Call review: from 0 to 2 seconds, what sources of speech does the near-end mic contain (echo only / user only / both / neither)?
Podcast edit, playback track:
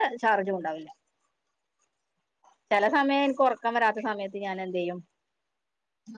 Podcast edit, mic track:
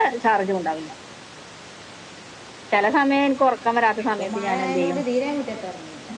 echo only